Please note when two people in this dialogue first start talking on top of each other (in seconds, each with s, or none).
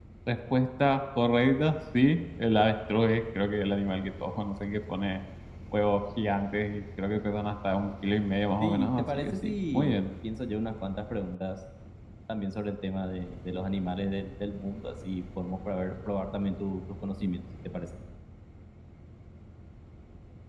8.6 s